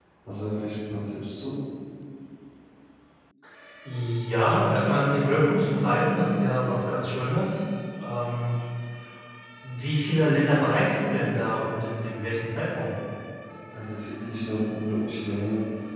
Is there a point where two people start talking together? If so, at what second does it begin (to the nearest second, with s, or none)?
none